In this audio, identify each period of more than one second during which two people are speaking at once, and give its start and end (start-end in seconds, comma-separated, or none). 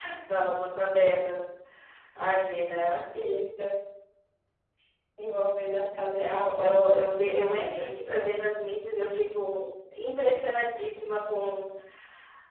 6.2-8.3